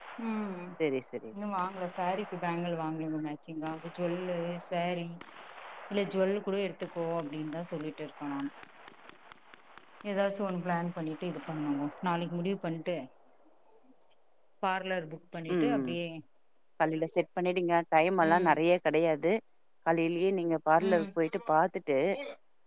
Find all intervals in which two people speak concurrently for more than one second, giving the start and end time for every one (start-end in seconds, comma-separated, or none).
none